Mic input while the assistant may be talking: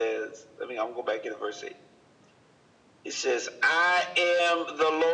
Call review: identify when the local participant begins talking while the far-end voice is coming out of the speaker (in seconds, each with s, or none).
none